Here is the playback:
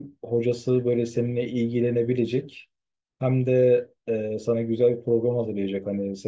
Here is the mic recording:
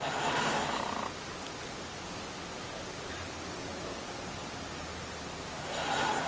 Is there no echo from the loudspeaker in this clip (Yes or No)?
Yes